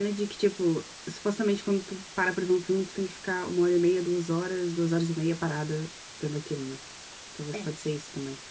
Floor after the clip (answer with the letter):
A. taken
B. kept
B